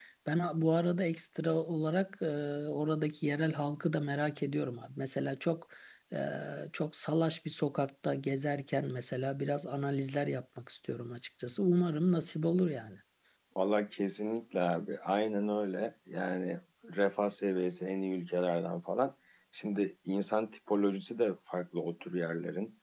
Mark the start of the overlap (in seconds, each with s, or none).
none